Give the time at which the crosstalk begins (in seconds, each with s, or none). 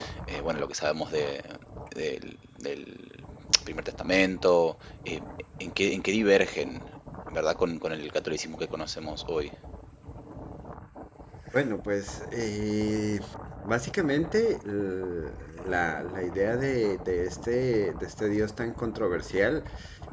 none